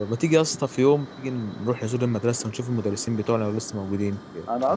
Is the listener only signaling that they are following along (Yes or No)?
No